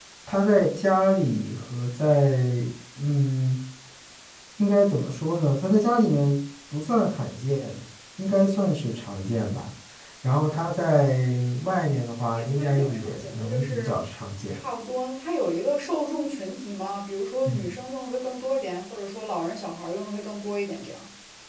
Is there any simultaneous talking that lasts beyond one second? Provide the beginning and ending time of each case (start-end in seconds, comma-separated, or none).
12.3-14.0